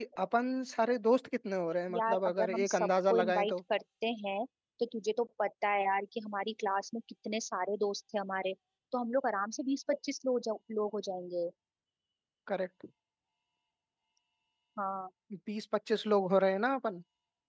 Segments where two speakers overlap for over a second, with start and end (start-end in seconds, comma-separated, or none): 1.9-3.5